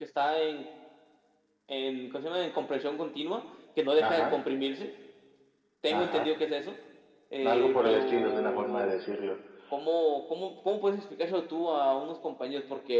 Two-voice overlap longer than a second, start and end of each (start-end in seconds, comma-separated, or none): 7.4-9.0